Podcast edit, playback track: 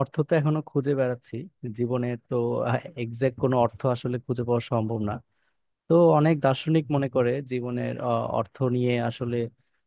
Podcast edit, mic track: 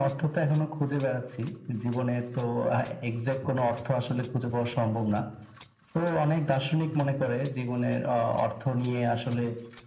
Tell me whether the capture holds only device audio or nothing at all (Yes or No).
Yes